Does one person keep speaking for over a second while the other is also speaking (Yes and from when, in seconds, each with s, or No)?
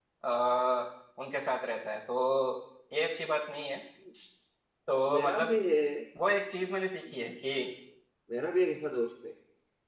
No